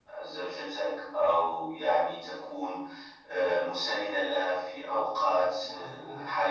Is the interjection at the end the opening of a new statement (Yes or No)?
No